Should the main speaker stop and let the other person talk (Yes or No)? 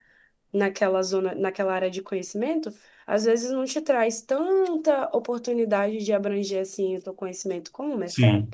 Yes